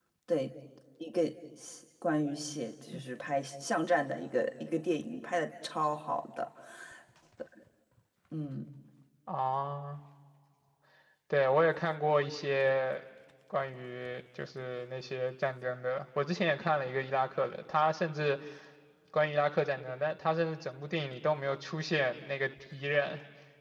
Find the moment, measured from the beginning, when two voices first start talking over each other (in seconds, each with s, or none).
none